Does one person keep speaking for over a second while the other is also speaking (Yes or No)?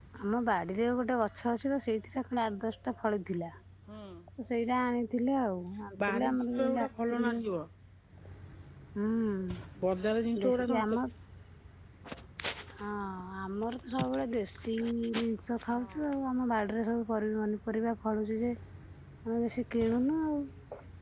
Yes